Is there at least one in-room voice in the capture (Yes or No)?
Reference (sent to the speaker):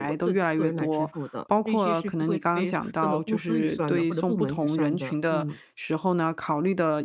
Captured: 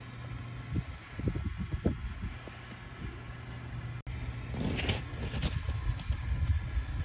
No